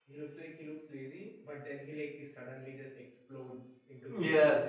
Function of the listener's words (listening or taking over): taking over